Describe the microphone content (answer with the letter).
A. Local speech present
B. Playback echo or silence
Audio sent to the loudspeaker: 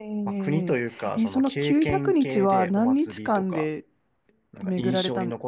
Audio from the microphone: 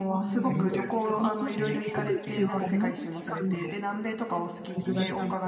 A